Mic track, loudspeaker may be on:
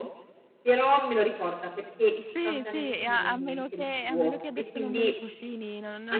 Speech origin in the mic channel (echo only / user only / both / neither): both